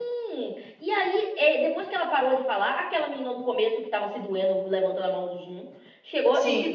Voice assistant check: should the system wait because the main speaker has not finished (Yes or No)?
Yes